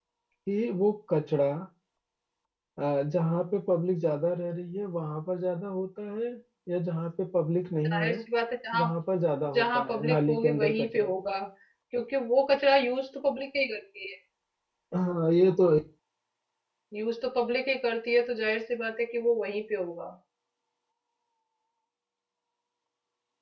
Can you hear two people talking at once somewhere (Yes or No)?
Yes